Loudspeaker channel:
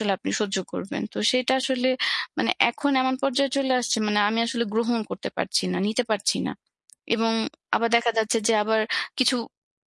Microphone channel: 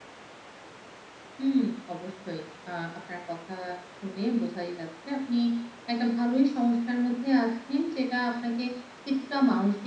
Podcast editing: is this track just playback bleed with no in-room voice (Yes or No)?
No